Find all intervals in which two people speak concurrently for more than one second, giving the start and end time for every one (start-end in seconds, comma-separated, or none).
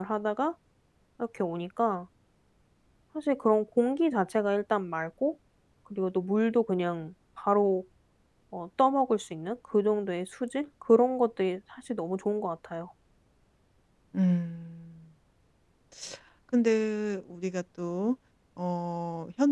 none